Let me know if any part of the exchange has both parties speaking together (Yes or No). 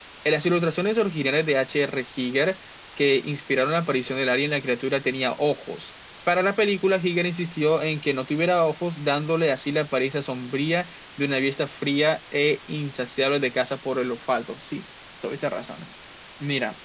No